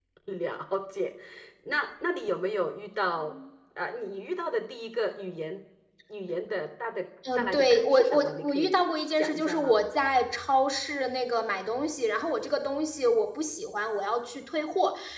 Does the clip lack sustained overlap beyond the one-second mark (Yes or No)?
No